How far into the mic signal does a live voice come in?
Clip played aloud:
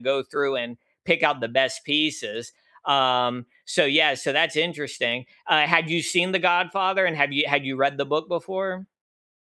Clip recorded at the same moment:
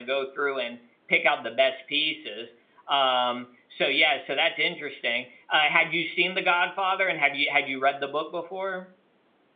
none

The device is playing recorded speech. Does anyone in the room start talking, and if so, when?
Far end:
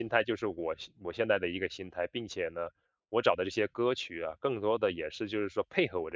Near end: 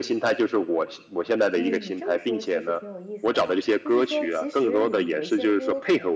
2 s

